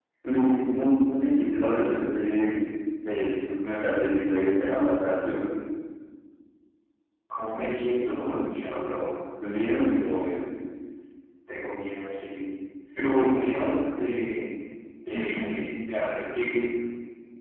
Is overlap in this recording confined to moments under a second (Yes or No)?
Yes